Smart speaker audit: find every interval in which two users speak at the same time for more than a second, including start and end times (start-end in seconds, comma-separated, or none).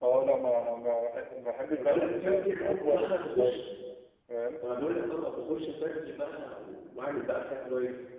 1.8-3.6